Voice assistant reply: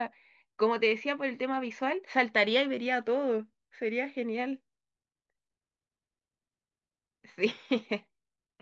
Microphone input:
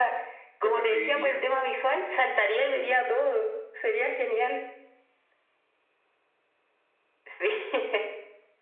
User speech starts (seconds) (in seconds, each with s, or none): 0.6 s